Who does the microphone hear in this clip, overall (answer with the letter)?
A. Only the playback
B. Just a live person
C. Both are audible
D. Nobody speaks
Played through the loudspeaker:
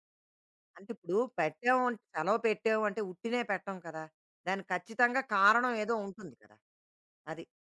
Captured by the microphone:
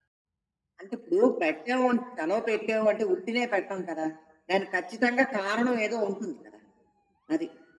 A